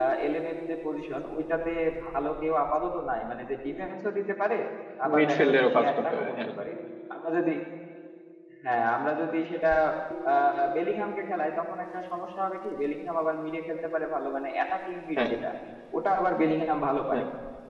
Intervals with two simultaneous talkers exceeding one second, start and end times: 5.2-6.5

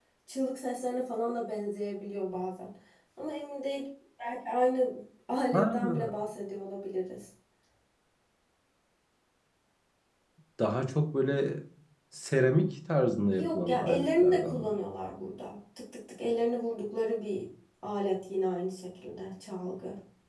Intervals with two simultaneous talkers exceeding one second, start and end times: 13.3-14.7

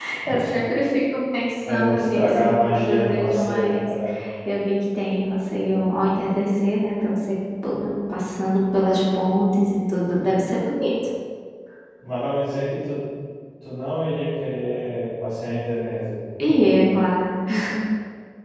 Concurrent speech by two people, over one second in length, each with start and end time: 1.6-3.9

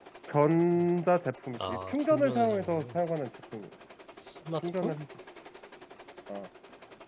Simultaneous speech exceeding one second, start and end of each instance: 1.6-3.0

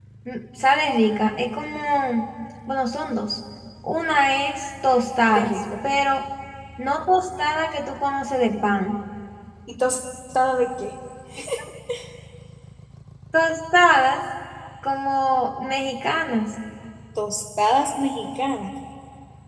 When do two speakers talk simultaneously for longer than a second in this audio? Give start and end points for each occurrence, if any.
none

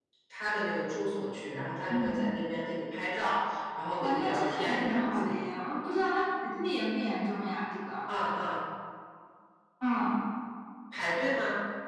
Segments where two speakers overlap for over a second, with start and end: 4.0-5.3

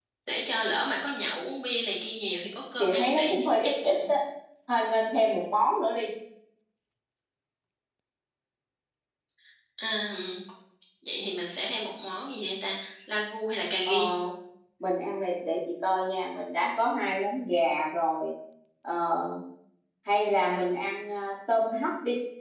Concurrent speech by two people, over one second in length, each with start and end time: 2.8-4.1

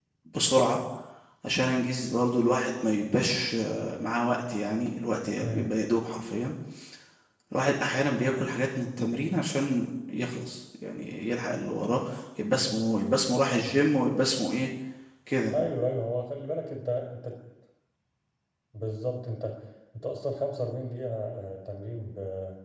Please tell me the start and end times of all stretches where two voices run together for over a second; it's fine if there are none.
none

